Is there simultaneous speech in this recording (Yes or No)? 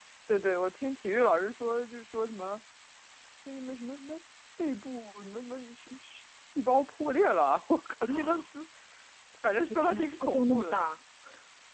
Yes